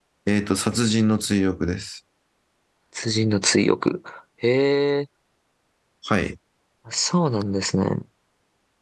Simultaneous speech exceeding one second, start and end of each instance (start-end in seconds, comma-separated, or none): none